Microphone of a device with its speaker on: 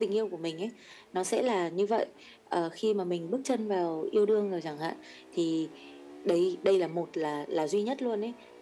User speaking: No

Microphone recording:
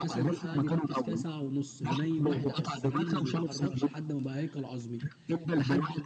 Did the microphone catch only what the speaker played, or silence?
No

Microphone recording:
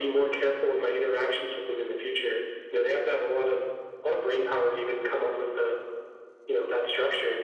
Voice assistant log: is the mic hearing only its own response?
Yes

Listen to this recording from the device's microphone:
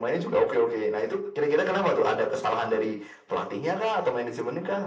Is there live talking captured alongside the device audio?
No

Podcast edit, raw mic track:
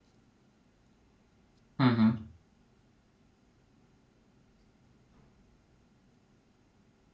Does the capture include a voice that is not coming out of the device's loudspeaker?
Yes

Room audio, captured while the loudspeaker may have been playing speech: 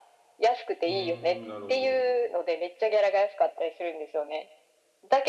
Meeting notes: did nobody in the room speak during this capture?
No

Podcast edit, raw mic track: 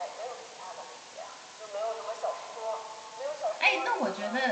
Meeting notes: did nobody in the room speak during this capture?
No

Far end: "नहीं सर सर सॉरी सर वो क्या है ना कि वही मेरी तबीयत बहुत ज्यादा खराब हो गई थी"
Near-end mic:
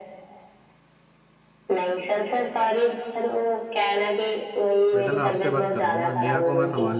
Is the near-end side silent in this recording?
No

